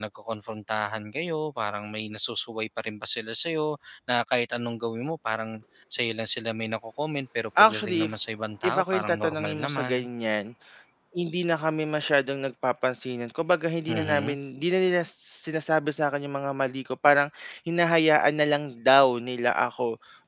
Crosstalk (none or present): present